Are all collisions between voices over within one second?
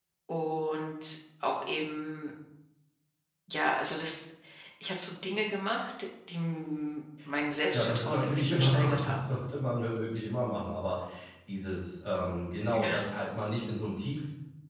No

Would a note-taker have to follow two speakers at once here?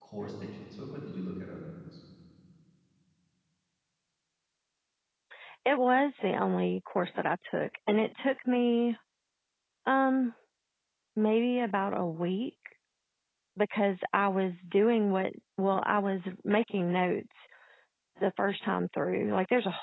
No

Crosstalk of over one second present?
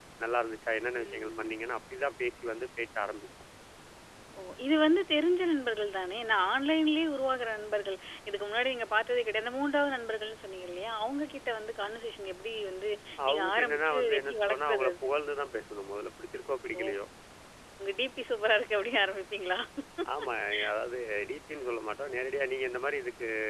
Yes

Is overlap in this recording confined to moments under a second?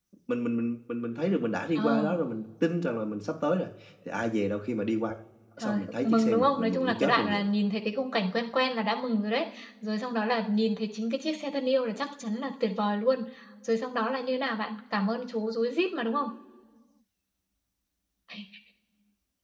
No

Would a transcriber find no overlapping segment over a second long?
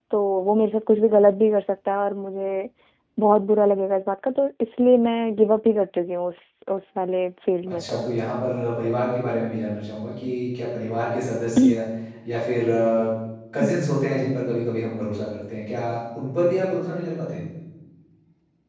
Yes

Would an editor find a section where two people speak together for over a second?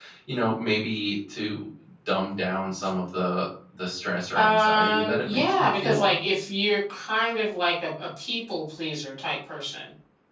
Yes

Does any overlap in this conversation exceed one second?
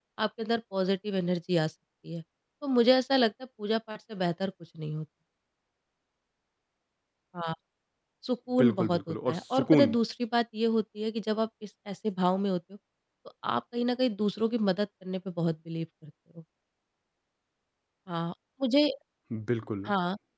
Yes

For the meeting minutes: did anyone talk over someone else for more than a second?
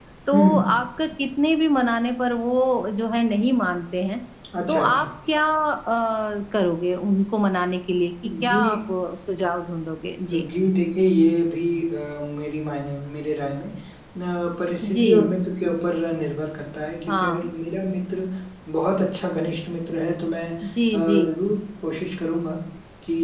No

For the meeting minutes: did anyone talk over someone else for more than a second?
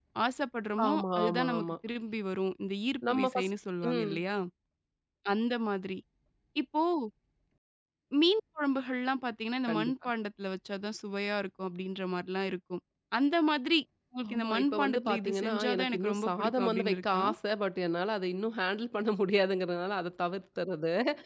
Yes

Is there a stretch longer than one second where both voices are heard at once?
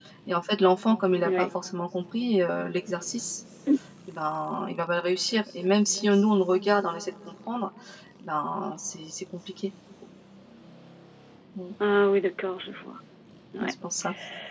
No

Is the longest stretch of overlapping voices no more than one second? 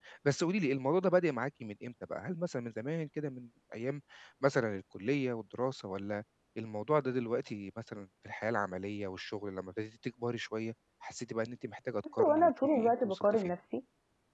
No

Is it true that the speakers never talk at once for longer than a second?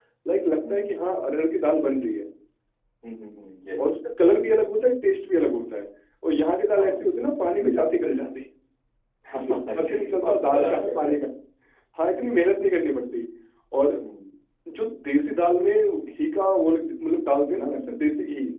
No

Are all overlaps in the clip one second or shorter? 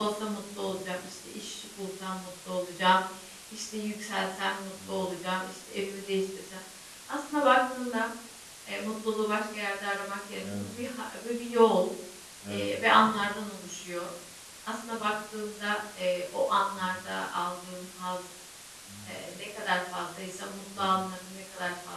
Yes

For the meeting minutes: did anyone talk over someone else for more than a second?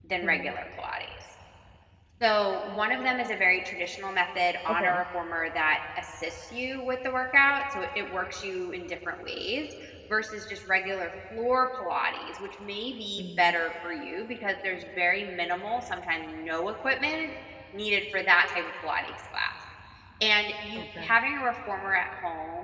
No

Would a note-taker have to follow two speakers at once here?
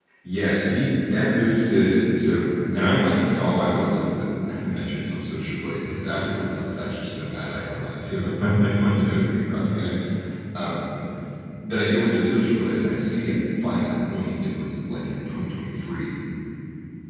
No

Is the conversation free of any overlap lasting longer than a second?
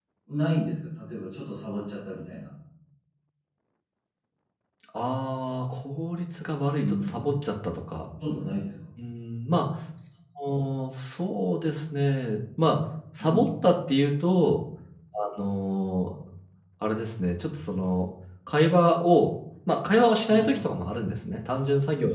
Yes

